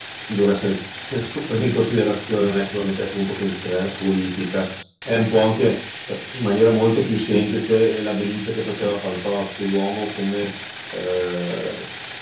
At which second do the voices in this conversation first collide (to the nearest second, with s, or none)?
none